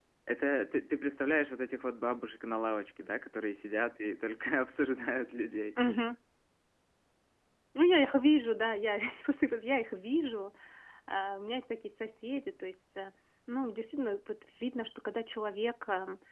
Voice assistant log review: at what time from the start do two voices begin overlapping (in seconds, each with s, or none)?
none